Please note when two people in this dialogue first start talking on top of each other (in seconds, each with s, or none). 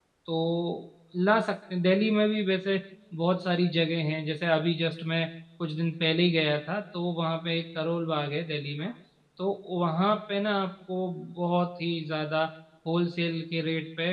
none